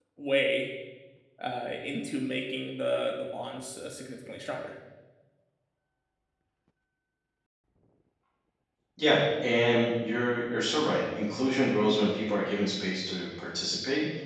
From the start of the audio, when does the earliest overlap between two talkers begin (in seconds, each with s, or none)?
none